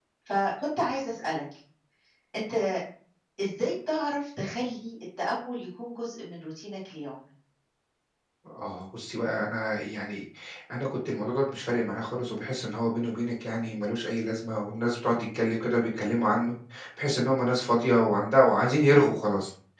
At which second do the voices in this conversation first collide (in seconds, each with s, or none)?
none